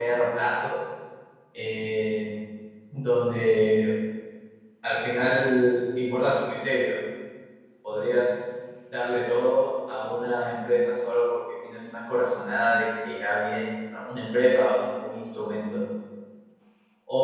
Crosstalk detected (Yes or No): No